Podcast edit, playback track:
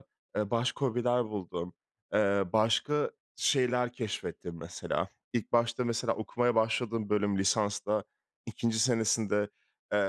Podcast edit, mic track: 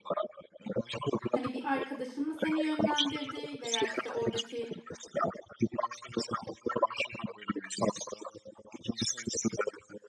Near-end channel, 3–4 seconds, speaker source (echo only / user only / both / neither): both